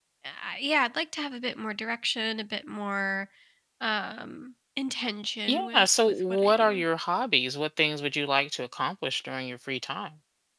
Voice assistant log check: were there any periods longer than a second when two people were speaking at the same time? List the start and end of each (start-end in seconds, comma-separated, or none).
5.5-6.8